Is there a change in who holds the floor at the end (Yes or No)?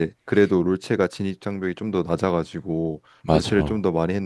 No